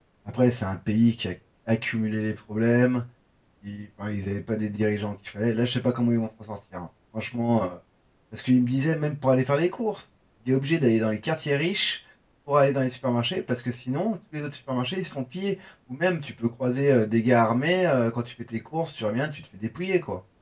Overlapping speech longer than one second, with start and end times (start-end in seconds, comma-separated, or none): none